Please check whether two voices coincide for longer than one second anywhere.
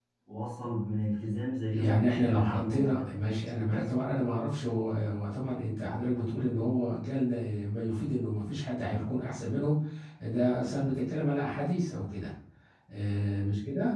Yes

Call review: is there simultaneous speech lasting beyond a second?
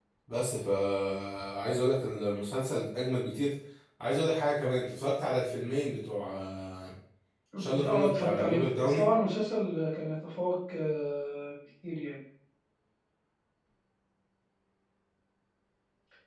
Yes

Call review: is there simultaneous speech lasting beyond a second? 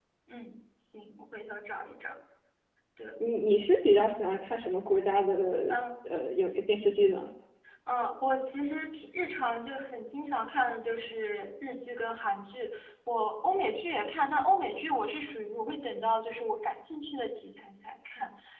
No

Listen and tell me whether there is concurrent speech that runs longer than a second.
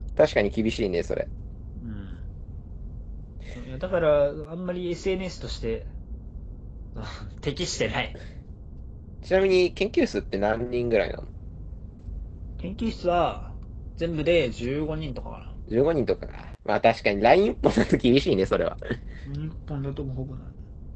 No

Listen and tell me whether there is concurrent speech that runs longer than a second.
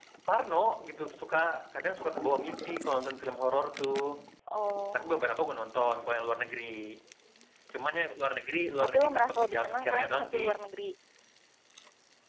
Yes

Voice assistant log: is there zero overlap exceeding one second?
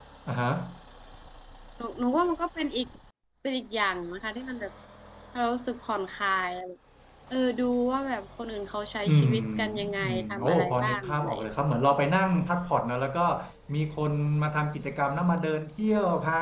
No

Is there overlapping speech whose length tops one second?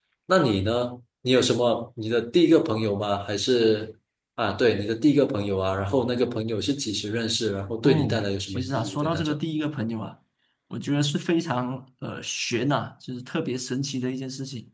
Yes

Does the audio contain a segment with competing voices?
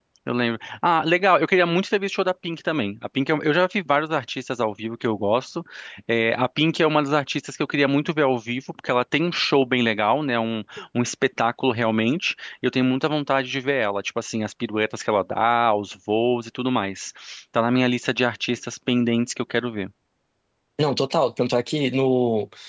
No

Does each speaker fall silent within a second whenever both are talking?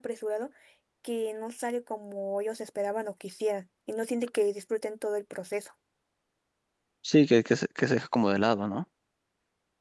Yes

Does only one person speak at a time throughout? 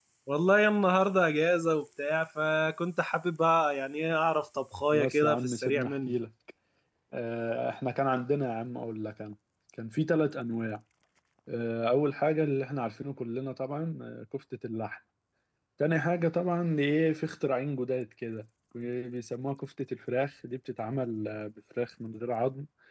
No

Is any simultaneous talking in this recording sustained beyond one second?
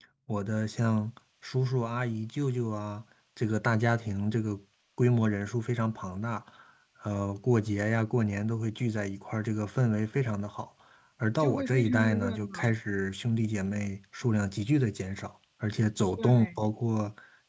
Yes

